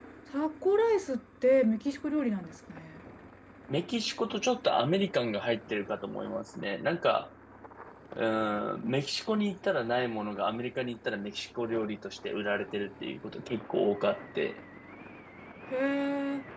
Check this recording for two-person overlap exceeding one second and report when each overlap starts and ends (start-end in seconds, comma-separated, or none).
none